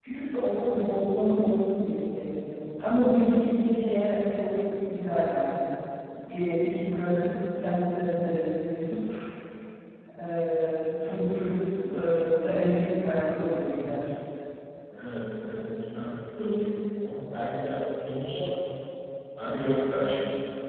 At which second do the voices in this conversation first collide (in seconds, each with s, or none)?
none